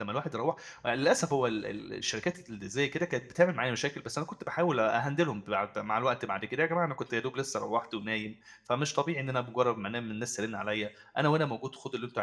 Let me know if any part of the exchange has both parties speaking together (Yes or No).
No